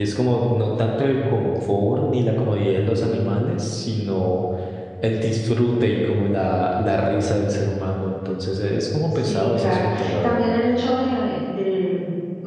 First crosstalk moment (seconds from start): 9 s

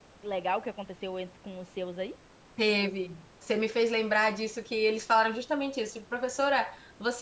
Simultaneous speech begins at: none

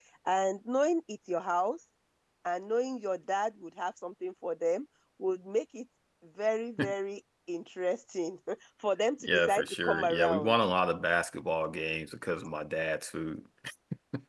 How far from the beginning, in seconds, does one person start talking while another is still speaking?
9 s

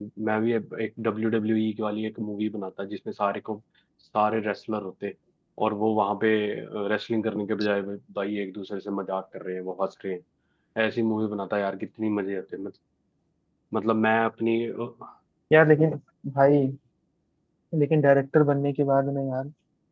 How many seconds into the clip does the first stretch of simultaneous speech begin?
none

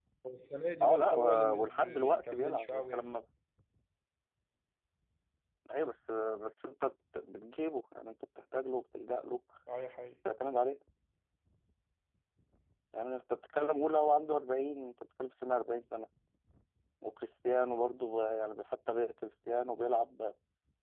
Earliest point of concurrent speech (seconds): 1 s

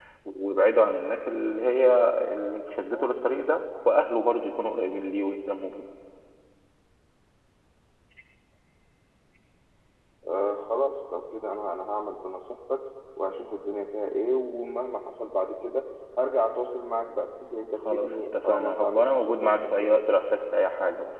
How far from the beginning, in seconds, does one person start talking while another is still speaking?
18 s

